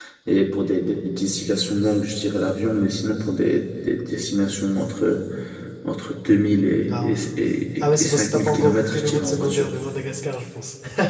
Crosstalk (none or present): present